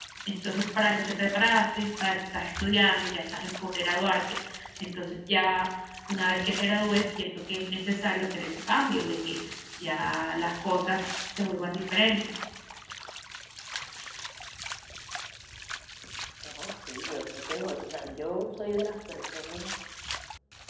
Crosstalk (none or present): none